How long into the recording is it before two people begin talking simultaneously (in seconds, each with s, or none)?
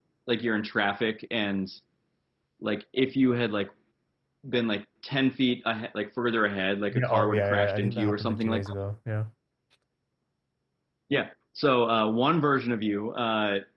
6.9 s